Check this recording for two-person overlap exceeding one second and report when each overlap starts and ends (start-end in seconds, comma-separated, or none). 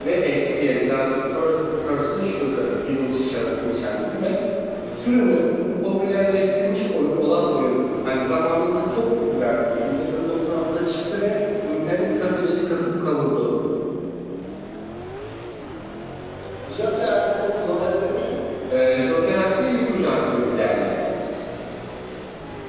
none